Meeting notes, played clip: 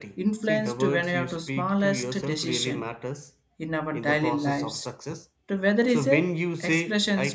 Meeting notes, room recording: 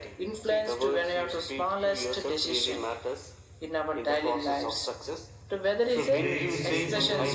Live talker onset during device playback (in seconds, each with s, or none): 5.9 s